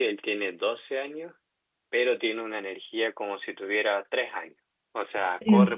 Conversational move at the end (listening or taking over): listening